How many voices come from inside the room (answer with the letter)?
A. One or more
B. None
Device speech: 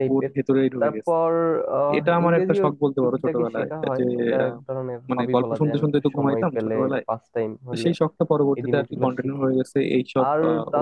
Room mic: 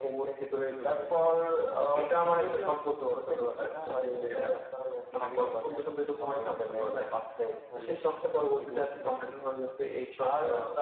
B